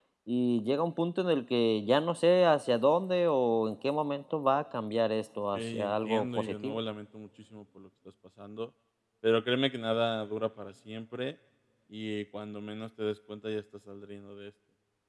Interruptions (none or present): present